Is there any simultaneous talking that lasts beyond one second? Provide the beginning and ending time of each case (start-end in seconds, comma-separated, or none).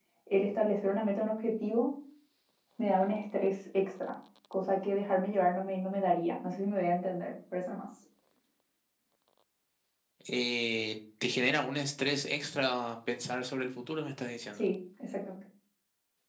none